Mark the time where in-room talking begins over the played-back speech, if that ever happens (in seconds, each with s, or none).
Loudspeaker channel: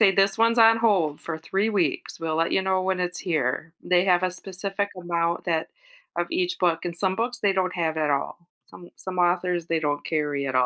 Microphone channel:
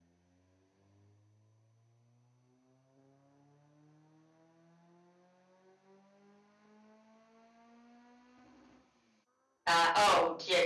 9.7 s